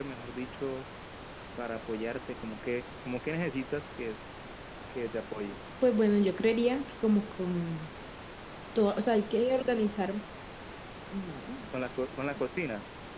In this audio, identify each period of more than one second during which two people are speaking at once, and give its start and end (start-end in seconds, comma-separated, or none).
none